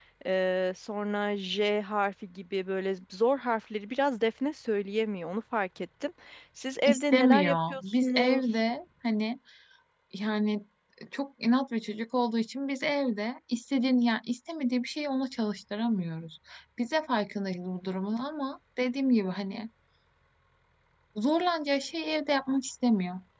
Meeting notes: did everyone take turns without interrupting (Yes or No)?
No